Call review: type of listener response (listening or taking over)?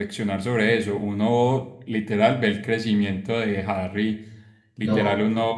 listening